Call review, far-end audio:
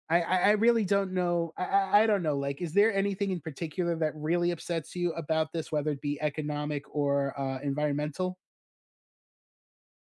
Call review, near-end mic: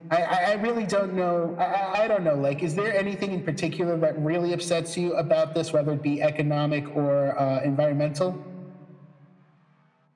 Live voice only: none

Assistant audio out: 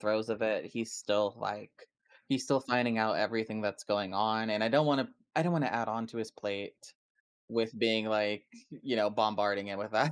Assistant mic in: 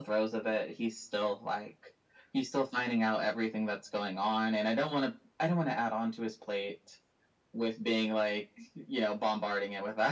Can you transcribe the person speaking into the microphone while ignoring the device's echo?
none

